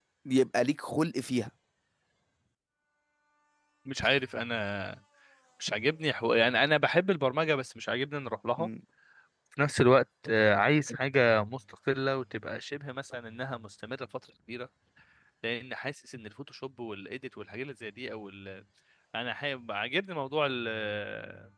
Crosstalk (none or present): none